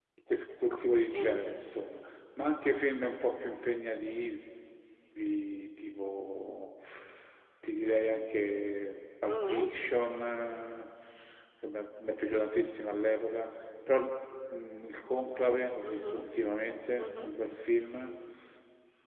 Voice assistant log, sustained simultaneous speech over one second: none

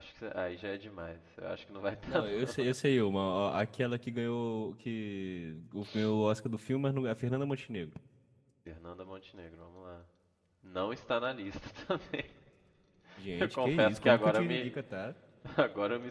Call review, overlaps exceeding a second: present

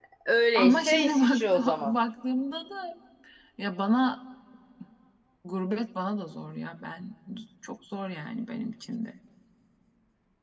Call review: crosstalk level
present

